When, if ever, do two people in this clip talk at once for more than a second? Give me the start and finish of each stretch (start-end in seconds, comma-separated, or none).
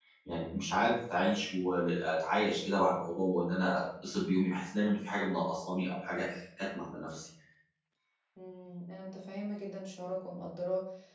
none